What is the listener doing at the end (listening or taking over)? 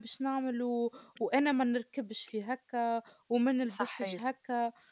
listening